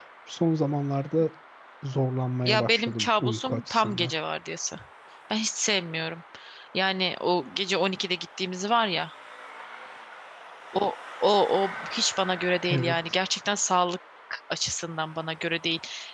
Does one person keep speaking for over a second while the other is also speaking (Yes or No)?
Yes